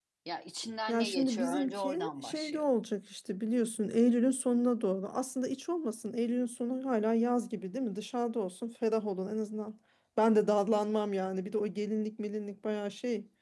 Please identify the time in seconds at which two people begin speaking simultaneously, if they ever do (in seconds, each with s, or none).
0.9 s